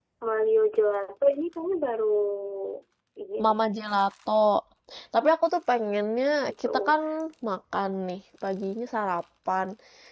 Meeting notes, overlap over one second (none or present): none